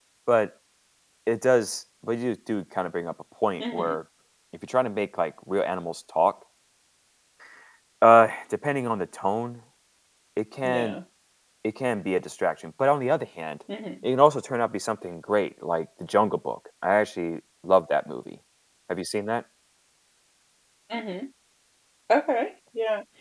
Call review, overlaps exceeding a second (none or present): none